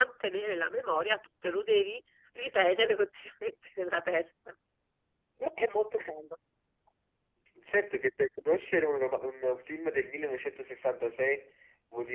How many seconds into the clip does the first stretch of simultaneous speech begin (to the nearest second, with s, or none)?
none